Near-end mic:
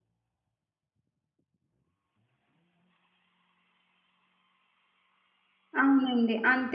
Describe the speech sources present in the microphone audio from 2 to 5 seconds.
neither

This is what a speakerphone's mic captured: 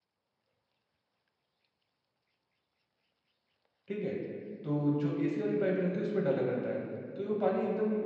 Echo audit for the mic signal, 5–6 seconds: user only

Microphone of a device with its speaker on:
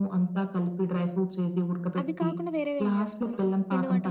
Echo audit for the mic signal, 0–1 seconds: echo only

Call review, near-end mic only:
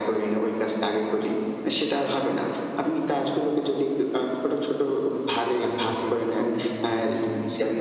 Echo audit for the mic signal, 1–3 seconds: echo only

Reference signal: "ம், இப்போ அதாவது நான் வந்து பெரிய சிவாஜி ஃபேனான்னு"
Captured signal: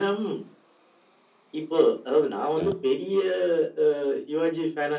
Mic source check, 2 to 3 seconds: both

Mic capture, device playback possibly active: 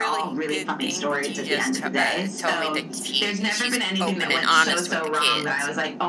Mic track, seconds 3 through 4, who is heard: both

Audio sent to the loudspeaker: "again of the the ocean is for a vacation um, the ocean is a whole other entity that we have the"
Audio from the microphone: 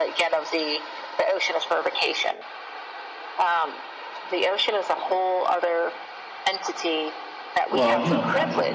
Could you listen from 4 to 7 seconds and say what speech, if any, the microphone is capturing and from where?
echo only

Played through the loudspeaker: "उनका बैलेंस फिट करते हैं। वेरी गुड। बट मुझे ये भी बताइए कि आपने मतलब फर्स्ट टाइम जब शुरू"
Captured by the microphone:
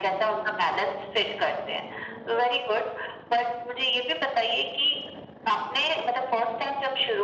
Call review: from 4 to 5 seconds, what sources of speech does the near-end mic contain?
echo only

